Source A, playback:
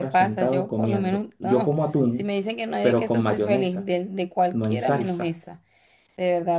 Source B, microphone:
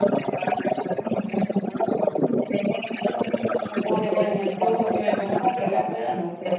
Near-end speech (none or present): present